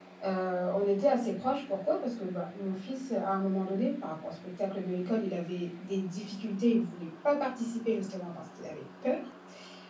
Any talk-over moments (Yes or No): No